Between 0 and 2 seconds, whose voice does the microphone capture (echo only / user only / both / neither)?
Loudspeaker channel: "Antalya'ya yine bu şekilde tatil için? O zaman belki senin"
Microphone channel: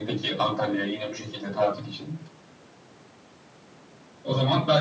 echo only